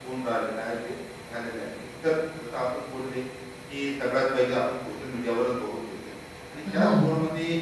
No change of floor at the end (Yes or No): Yes